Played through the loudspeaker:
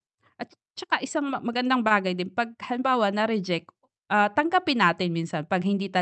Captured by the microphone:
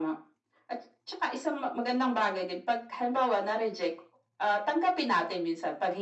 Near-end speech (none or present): none